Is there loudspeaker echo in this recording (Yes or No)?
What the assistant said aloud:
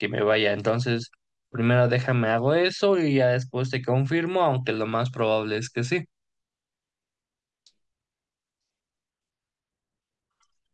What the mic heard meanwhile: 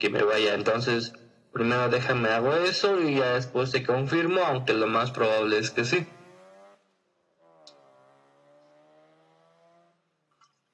Yes